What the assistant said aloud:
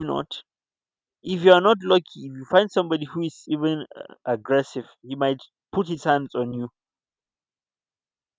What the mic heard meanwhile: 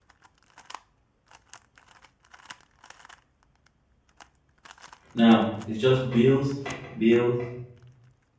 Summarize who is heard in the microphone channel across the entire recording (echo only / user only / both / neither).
user only